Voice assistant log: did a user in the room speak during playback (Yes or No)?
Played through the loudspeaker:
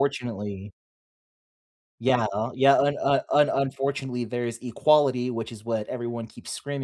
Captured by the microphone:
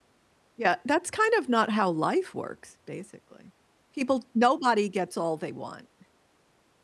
Yes